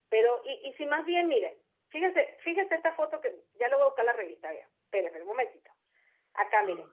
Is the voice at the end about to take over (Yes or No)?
No